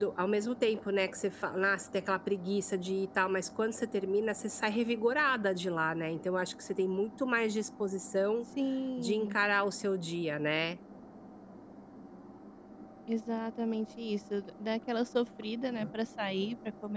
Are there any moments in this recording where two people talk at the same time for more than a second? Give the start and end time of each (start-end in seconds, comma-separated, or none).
none